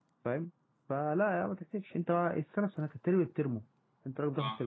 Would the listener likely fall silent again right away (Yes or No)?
Yes